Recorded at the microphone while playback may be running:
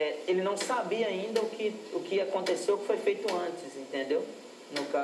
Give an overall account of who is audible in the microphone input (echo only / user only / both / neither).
echo only